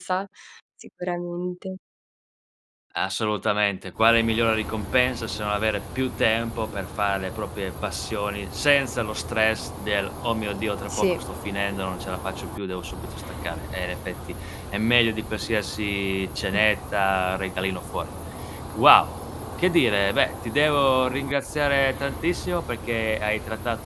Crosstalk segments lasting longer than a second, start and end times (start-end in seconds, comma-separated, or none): none